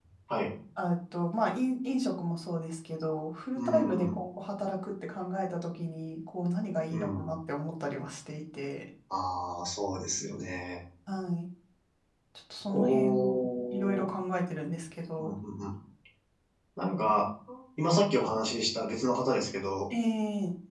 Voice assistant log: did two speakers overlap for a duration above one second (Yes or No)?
Yes